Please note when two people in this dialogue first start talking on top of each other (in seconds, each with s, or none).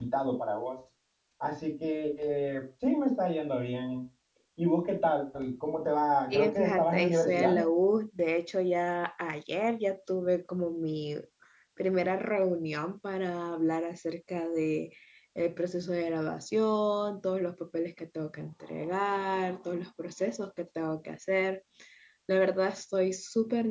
6.3 s